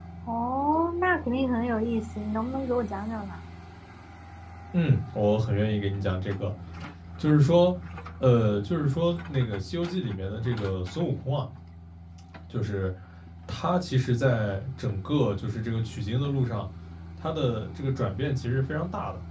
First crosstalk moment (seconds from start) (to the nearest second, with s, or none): none